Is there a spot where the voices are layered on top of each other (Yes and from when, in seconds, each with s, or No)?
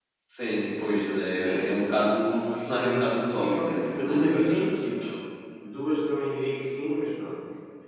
Yes, from 1.4 s